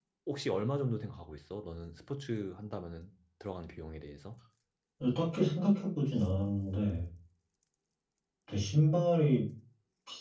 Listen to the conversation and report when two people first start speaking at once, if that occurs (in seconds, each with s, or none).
none